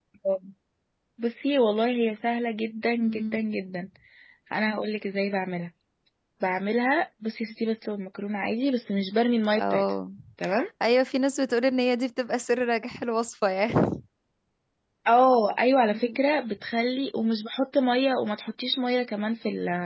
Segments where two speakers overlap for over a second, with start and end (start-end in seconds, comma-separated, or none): none